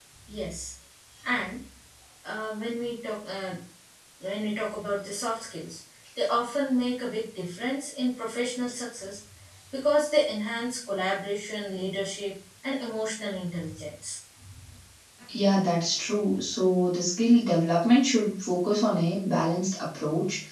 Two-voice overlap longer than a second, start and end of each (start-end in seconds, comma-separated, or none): none